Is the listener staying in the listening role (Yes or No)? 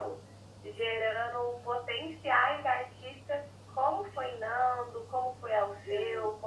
Yes